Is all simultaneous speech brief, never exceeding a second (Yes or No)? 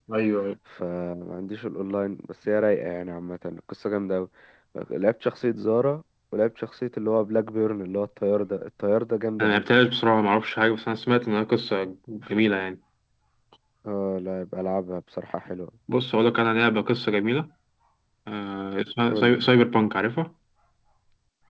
Yes